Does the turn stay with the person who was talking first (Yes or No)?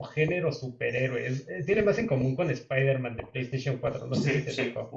No